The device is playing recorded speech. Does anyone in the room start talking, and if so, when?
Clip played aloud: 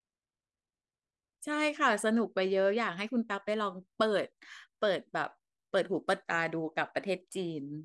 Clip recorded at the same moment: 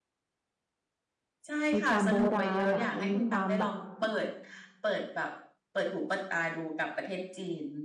1.7 s

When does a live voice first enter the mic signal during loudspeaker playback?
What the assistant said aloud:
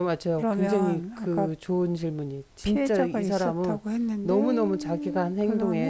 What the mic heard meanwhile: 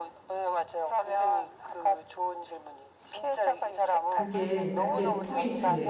4.1 s

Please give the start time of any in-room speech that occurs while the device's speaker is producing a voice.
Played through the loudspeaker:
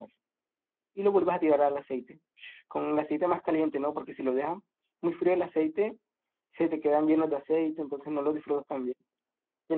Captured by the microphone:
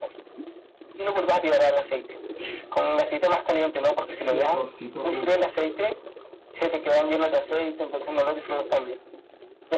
4.3 s

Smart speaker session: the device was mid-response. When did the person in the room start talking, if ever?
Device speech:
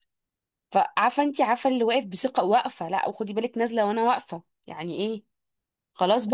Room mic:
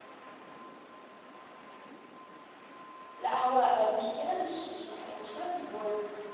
3.2 s

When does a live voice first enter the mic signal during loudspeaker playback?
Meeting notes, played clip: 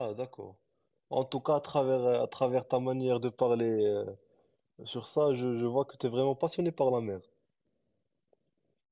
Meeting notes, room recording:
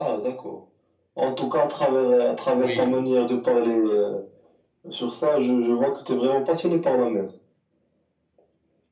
2.5 s

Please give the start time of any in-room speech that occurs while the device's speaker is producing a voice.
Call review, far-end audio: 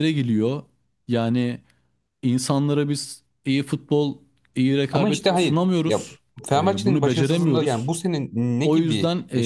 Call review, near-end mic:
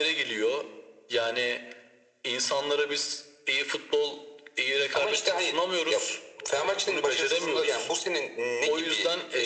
none

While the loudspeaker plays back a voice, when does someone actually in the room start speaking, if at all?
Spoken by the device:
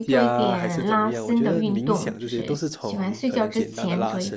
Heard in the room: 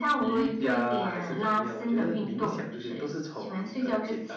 none

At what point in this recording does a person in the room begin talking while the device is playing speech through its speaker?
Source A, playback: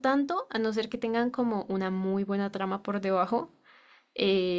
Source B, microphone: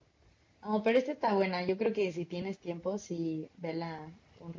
0.6 s

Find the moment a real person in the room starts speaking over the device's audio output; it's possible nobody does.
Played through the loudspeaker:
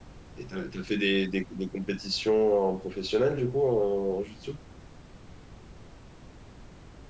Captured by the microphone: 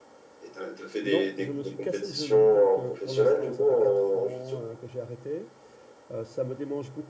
1.0 s

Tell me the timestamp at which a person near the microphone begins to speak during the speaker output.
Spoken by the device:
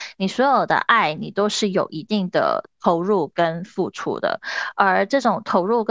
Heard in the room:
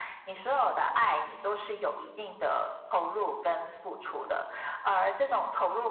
none

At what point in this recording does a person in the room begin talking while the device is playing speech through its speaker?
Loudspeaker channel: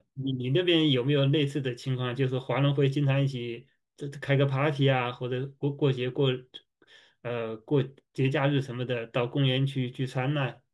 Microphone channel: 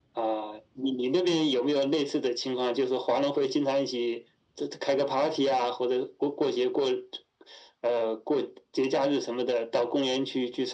none

